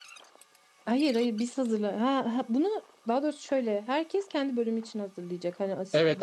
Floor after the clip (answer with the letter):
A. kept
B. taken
B